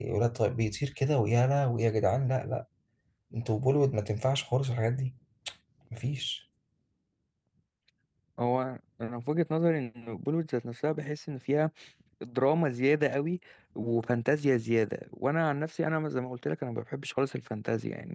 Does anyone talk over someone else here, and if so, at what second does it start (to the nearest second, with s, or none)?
none